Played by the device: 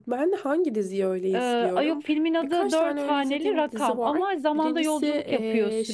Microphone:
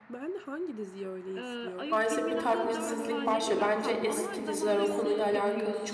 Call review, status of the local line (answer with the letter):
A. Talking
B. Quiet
A